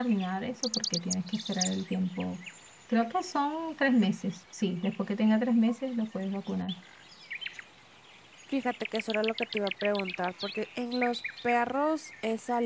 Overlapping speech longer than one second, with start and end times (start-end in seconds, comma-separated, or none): none